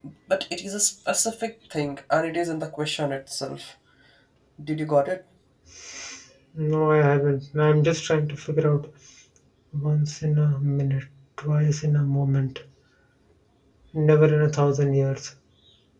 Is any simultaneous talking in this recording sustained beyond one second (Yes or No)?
No